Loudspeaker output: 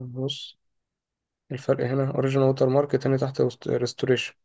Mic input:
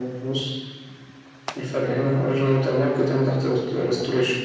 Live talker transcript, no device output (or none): none